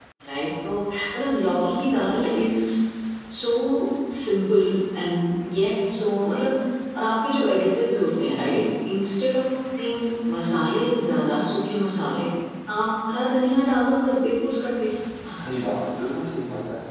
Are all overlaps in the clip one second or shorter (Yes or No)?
Yes